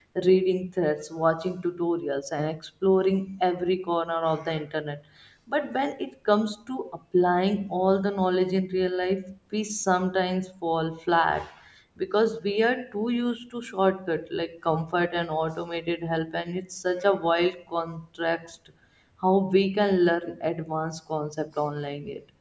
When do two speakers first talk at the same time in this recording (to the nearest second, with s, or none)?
none